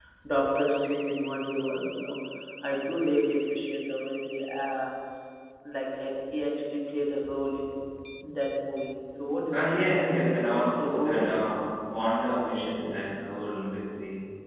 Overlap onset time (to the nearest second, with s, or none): 9 s